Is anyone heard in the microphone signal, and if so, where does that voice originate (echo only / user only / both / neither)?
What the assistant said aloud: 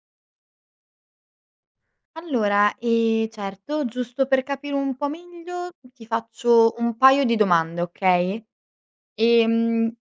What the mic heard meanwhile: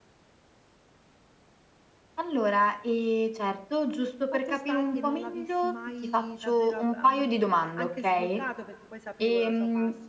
both